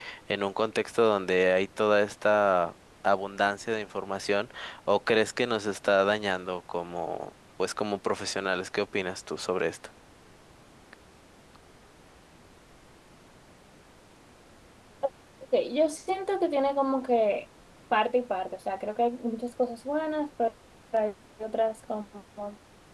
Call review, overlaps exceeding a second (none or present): none